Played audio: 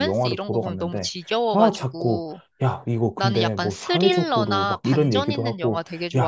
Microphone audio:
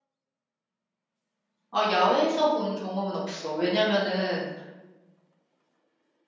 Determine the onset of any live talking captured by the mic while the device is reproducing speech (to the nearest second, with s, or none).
2 s